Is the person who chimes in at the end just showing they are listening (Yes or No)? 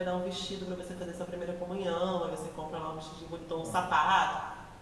Yes